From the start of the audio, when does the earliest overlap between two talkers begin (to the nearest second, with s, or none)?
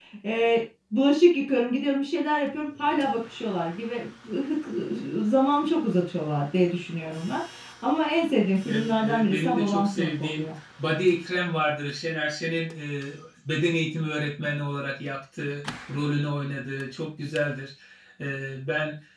9 s